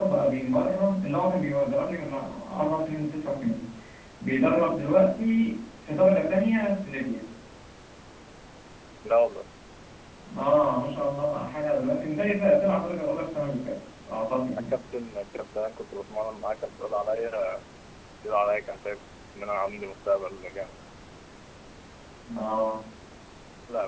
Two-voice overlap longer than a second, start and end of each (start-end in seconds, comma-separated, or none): none